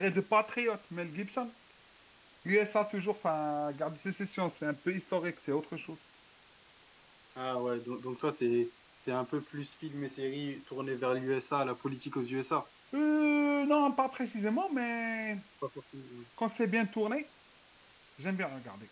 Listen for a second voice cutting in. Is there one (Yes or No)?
No